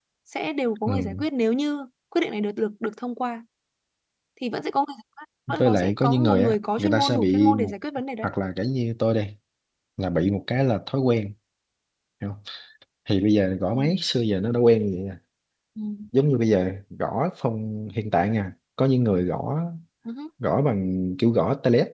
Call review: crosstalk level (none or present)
present